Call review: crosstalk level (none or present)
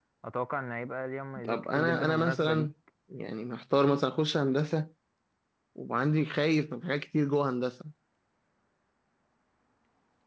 present